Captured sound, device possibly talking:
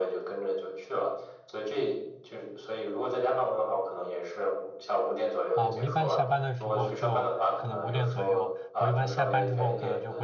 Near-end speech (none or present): present